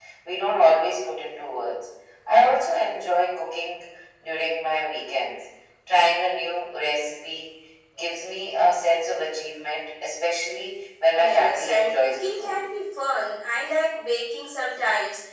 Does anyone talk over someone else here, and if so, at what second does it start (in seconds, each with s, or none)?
11.1 s